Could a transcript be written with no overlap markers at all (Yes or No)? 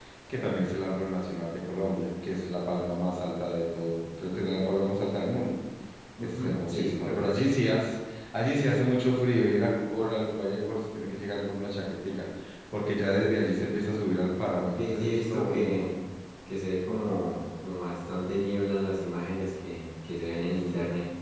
No